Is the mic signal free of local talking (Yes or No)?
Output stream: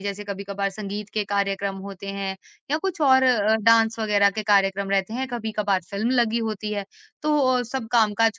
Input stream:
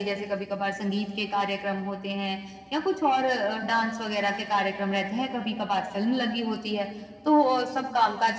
Yes